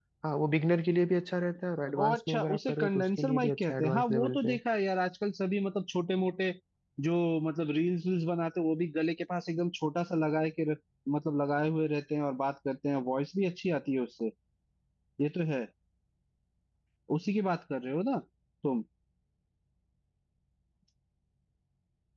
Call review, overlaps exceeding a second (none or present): present